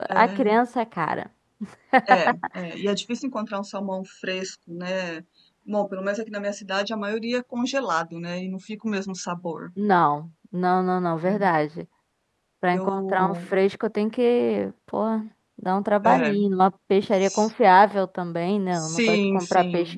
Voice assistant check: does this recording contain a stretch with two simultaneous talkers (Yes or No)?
Yes